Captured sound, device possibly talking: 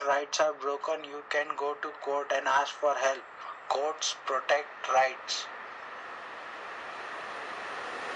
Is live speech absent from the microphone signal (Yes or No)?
Yes